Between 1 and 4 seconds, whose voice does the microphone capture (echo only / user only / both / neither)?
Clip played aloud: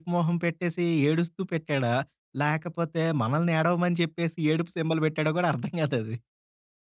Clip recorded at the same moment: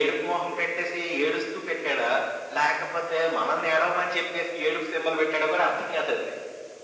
echo only